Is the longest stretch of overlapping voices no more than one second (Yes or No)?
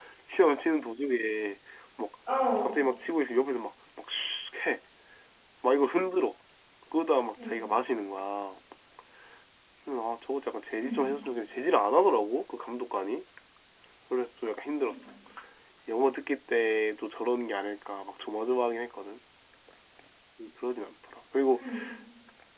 Yes